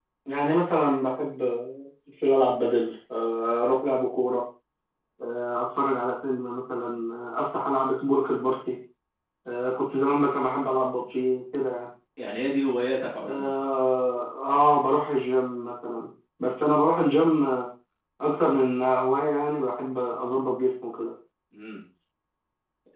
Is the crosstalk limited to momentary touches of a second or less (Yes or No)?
Yes